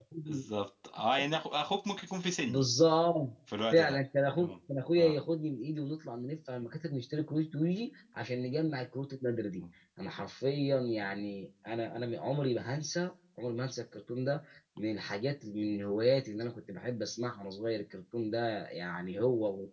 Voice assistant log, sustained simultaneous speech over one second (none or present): none